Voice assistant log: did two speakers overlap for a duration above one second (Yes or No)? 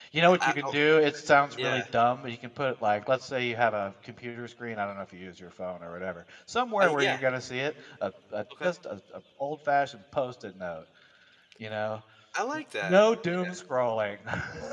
No